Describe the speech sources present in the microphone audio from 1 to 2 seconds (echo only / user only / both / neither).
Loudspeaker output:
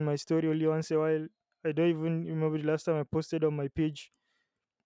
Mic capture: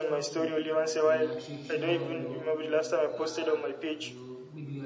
both